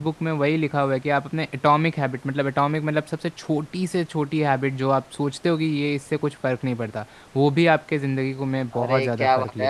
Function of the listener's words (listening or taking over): taking over